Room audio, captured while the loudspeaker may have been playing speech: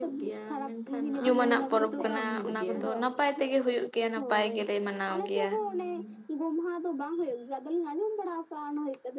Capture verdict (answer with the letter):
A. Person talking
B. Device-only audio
A